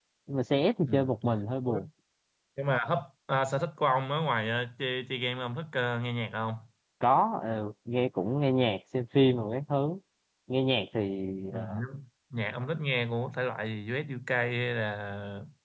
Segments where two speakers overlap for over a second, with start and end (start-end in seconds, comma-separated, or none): none